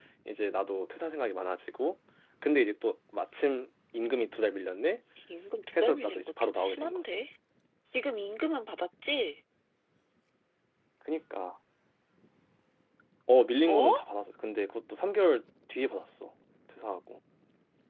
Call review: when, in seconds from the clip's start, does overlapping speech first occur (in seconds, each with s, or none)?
5.8 s